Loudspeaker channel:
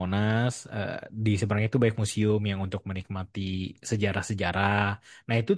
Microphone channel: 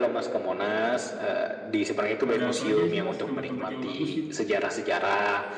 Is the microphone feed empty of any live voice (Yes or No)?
No